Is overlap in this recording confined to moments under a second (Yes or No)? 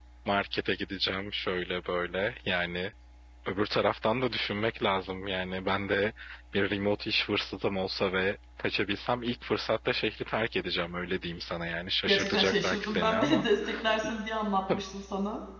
No